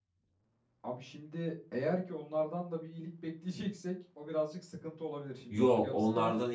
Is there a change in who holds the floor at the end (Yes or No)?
Yes